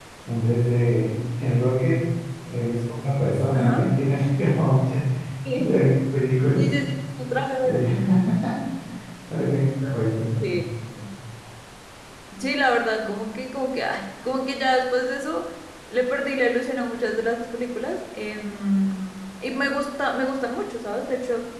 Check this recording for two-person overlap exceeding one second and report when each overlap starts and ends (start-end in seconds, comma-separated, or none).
none